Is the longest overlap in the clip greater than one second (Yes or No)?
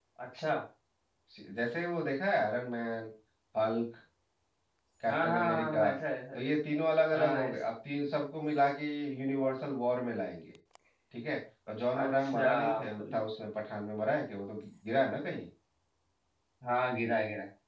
Yes